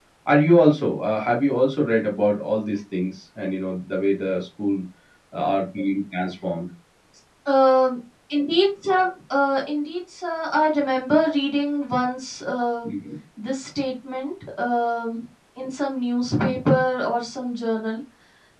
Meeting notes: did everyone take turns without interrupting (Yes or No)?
Yes